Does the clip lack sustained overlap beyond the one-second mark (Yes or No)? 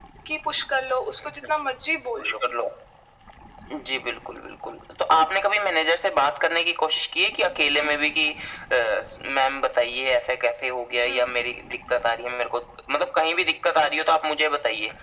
Yes